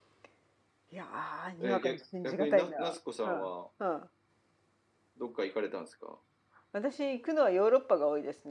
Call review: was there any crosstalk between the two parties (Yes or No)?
Yes